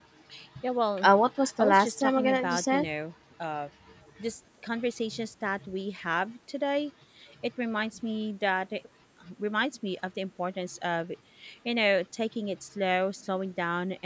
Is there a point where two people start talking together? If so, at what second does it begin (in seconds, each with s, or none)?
1.6 s